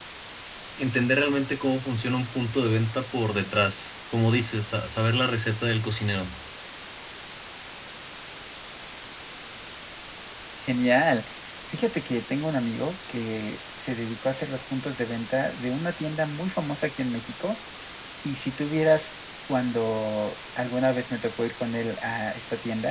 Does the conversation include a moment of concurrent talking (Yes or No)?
No